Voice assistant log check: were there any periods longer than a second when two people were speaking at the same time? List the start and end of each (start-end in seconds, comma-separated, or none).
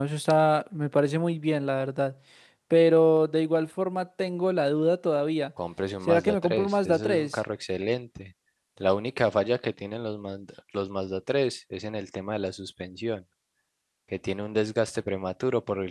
6.1-7.4